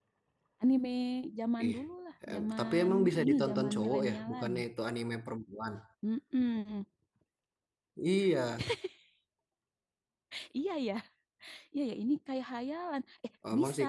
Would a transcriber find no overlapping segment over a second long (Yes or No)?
No